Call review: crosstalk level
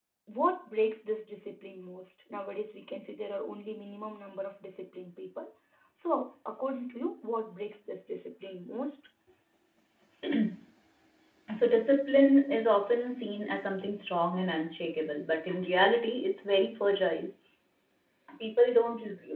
none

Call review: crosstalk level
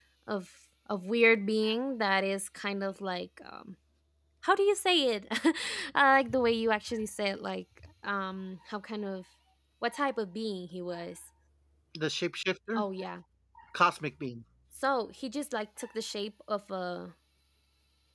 none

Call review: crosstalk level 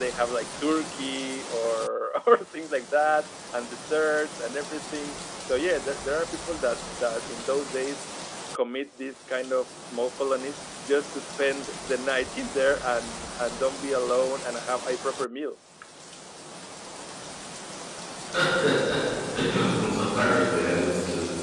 none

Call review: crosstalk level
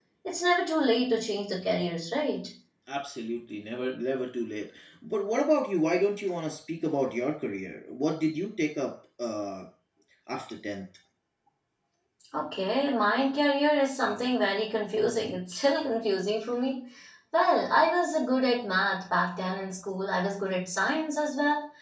none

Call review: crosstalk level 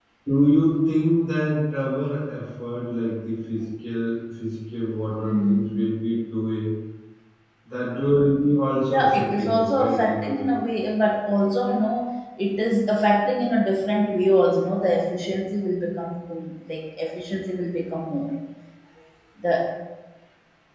present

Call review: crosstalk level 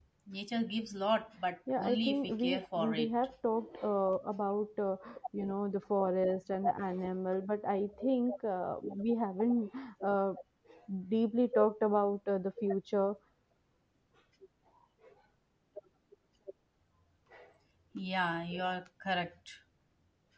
present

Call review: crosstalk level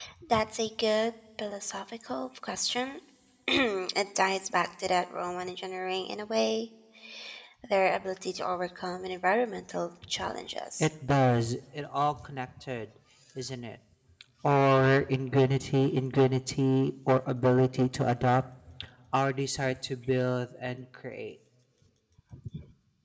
none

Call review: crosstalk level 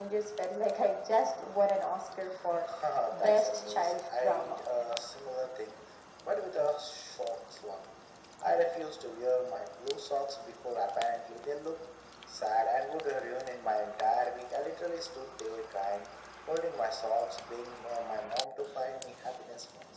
present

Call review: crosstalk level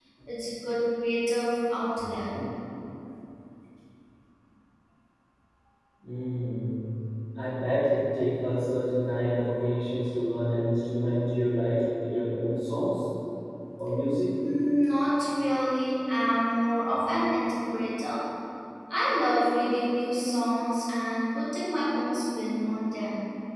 none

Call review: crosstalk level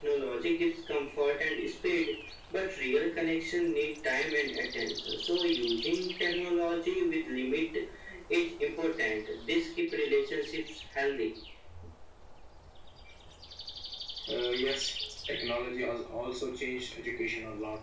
none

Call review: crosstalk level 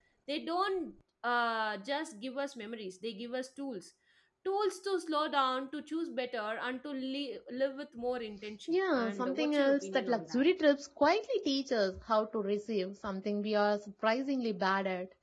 present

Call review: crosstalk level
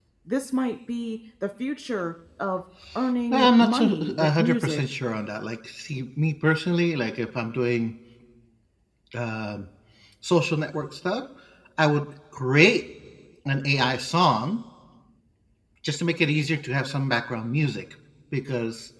present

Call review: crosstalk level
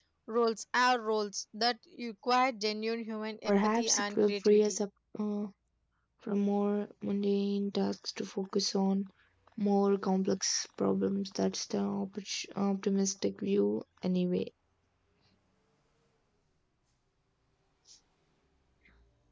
present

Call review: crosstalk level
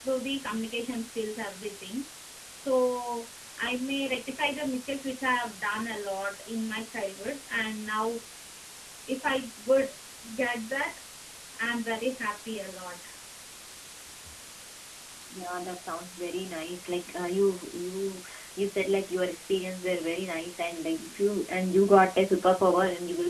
none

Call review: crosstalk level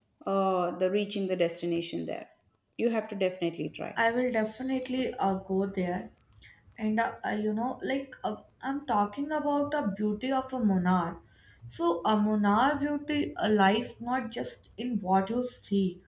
none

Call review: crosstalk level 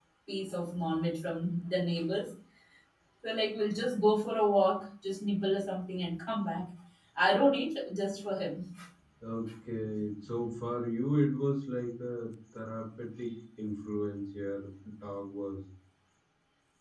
none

